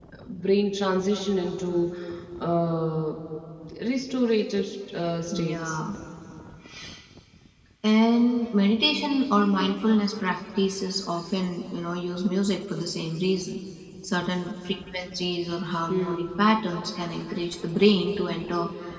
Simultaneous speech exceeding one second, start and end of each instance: none

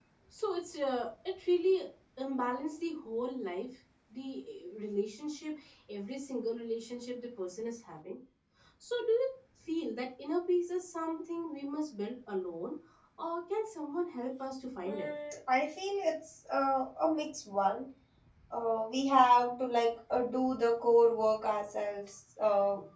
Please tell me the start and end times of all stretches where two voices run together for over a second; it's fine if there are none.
none

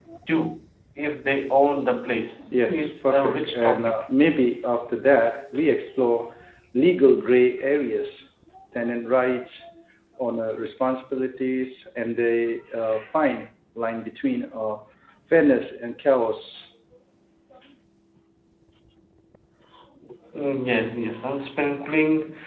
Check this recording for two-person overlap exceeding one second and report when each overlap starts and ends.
2.7-4.0

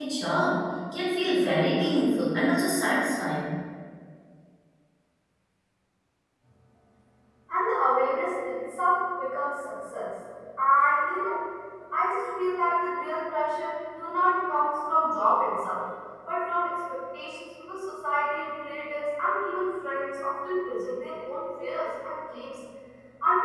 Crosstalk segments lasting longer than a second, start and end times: none

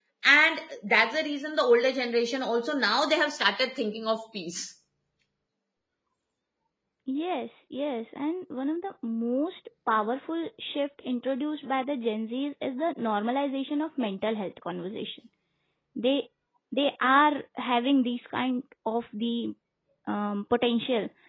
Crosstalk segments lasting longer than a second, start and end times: none

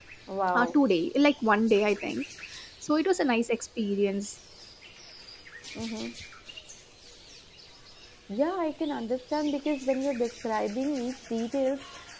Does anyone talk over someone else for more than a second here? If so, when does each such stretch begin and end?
none

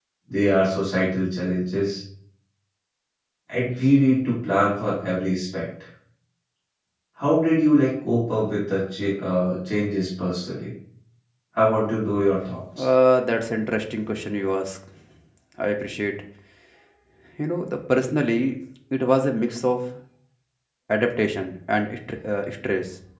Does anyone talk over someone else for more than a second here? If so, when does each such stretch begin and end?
none

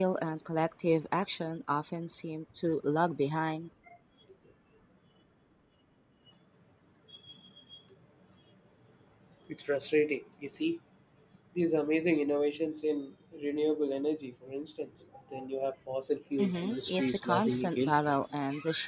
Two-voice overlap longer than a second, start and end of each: 16.4-18.0

